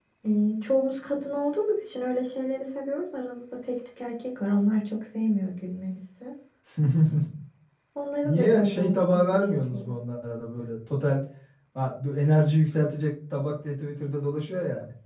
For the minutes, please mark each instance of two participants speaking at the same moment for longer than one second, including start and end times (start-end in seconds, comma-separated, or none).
8.2-9.9